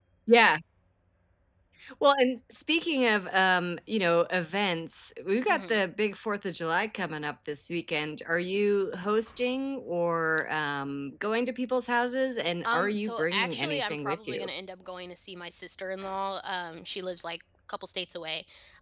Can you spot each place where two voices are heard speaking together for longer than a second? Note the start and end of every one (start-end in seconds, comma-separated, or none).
12.7-14.5